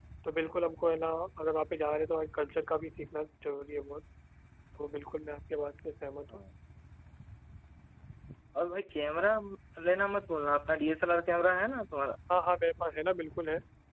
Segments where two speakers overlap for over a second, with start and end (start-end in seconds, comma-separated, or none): none